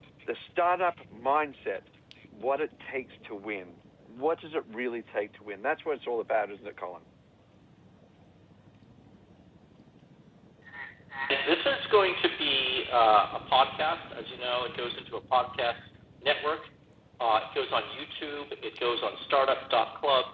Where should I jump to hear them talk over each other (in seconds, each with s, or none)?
none